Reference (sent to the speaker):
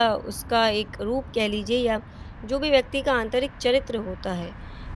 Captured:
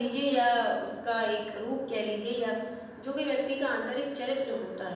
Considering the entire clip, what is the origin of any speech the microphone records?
echo only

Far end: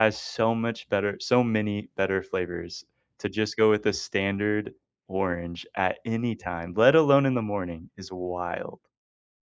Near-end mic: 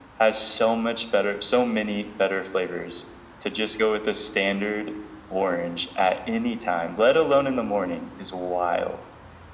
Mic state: echo only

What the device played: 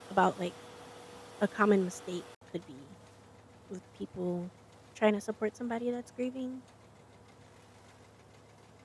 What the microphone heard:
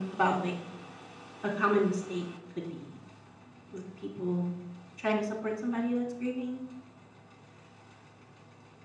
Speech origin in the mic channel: echo only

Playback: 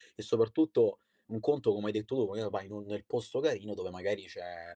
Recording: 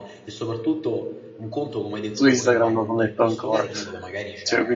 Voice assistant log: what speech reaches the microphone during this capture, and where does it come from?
both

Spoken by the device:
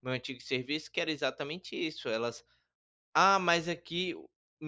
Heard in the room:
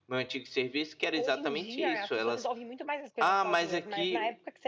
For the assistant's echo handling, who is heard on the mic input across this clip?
both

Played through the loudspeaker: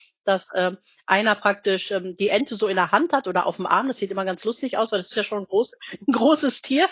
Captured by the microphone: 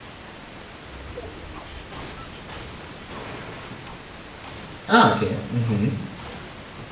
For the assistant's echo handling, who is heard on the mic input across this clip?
user only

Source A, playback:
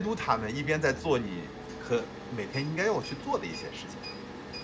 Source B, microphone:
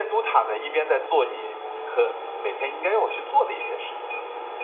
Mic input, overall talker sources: echo only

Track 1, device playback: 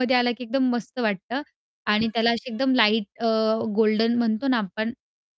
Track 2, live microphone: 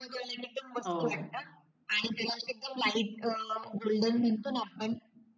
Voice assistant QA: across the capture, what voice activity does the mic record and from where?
both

